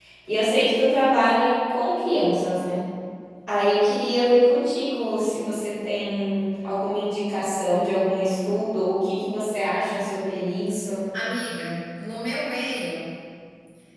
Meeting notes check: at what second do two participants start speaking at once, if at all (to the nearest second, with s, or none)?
none